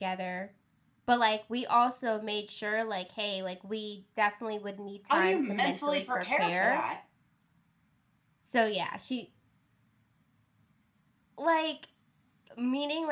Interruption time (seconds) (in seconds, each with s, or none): 5.1 s